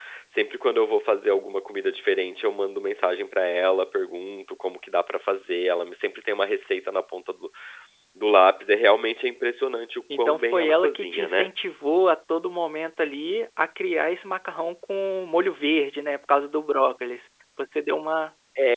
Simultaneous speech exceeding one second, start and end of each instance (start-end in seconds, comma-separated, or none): 10.1-11.5